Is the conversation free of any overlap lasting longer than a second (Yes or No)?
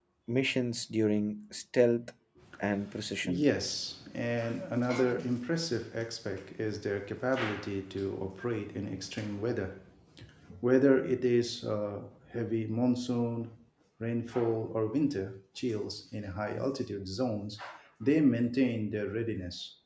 Yes